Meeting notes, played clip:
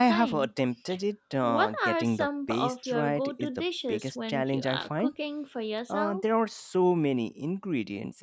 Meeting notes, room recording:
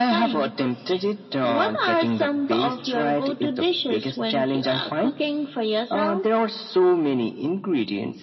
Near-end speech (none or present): none